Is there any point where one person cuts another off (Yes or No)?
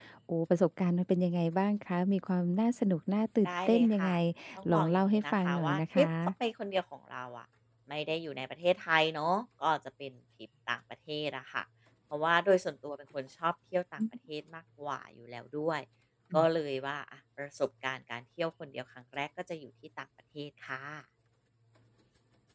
Yes